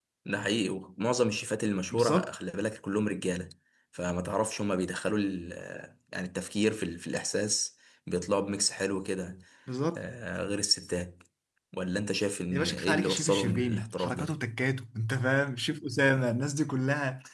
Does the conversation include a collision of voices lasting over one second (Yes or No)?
Yes